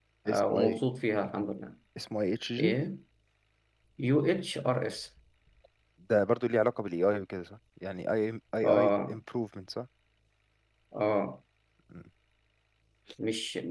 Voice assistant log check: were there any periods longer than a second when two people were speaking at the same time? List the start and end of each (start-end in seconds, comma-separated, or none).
none